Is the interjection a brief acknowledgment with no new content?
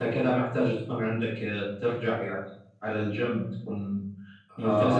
No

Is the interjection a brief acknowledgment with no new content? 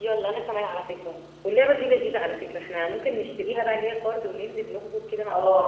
No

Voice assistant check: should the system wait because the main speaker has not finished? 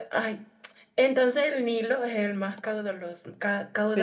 No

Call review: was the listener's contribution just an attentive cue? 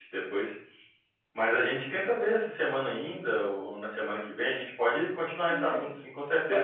No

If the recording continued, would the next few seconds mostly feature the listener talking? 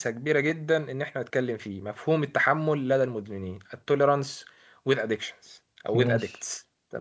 No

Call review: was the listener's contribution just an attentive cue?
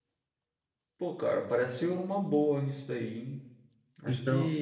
Yes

